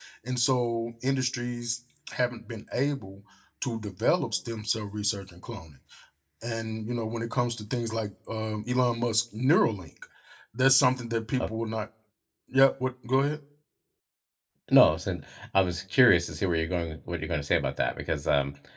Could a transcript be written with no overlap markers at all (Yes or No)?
Yes